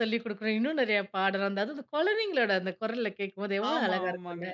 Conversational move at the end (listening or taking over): taking over